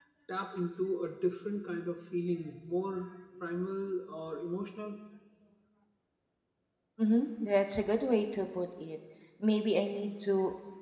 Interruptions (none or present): none